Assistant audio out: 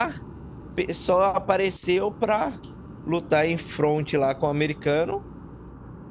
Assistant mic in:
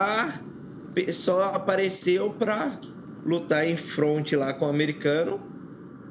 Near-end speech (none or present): none